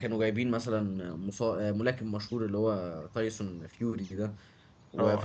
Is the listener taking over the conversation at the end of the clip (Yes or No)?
No